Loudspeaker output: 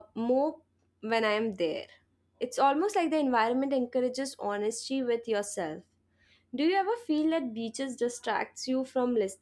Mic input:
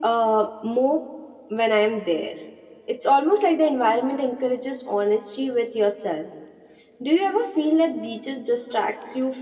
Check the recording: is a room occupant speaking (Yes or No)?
No